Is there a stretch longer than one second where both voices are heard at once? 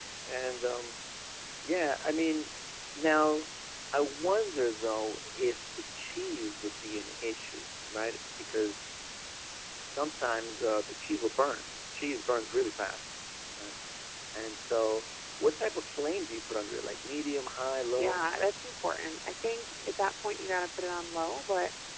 No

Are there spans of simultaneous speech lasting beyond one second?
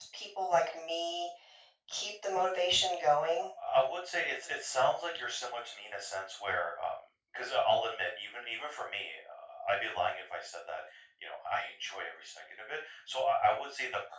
No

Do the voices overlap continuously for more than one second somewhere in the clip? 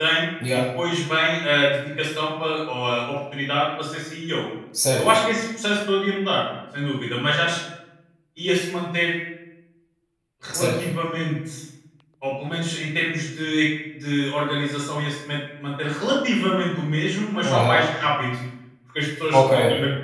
No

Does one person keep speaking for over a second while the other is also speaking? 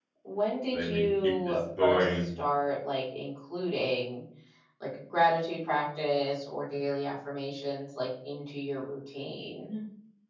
Yes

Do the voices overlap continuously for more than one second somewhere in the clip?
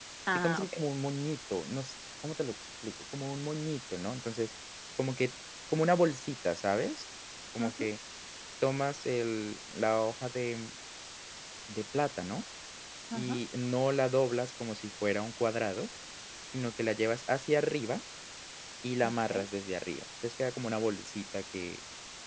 No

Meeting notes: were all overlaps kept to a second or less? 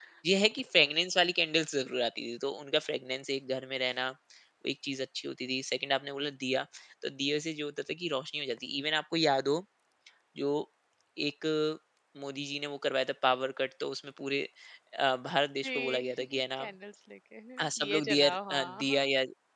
No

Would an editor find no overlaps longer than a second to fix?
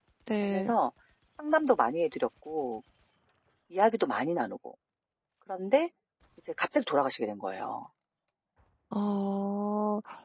Yes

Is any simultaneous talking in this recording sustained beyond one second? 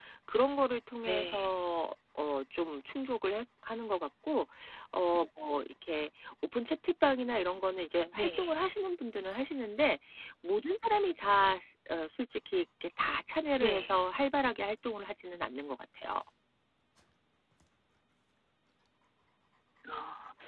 No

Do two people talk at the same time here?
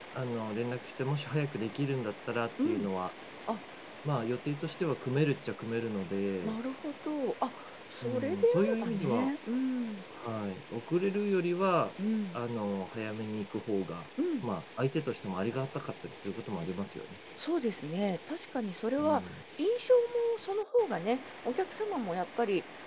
Yes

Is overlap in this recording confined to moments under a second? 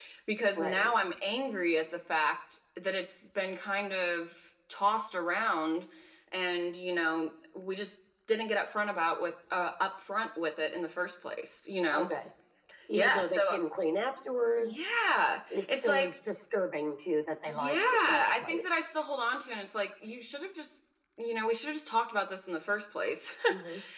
No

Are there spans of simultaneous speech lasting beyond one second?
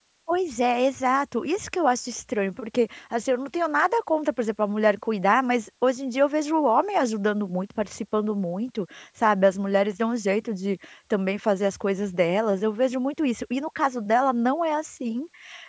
No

